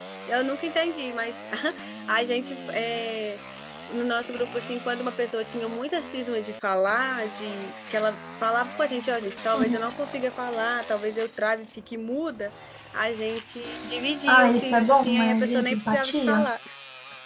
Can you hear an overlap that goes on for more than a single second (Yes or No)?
Yes